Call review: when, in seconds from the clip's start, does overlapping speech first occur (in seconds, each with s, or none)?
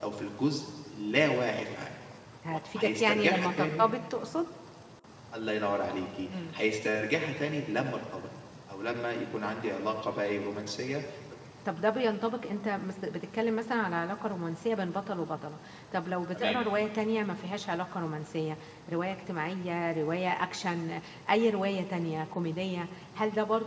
2.5 s